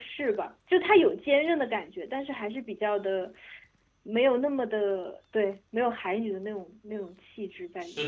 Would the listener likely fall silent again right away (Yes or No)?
No